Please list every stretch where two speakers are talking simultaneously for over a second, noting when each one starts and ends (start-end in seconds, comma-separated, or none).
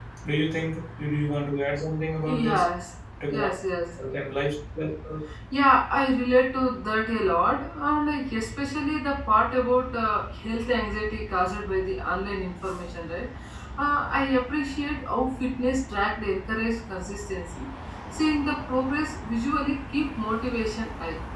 none